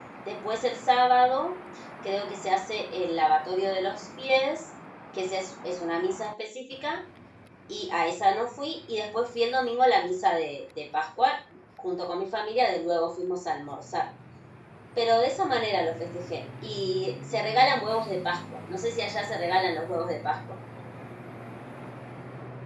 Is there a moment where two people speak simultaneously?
No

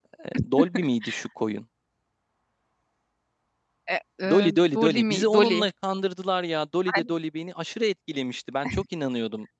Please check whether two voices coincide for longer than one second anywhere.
Yes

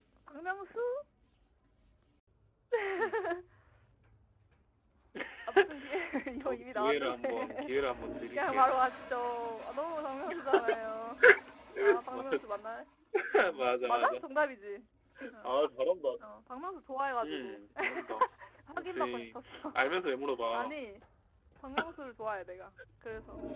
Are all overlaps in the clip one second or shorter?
No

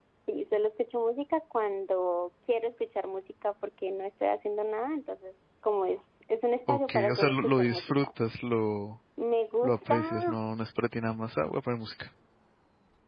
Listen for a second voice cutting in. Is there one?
Yes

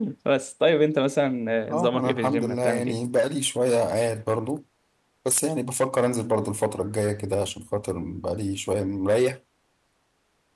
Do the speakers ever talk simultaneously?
Yes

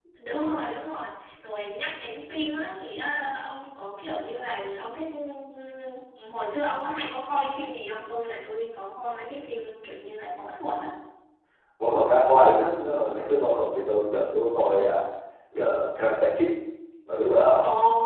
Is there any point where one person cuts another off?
No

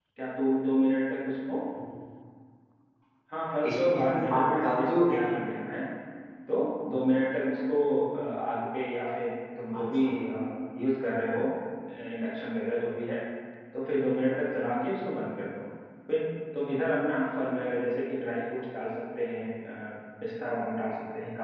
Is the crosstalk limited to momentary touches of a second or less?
No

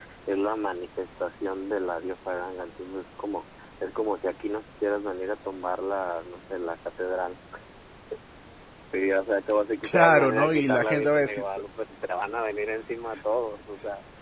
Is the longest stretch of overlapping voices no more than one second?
No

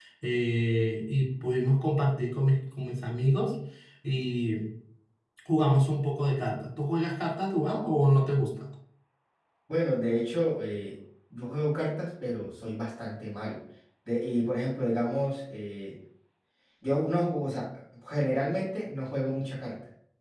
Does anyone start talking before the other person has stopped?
No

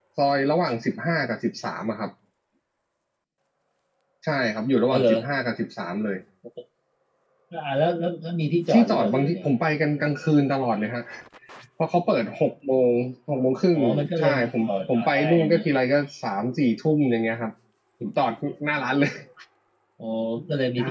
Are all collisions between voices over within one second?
No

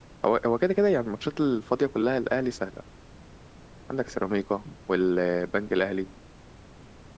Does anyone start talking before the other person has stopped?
No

